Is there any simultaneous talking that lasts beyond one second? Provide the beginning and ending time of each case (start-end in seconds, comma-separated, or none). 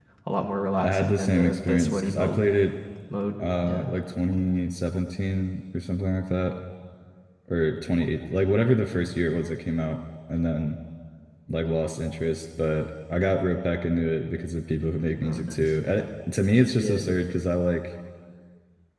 0.8-2.4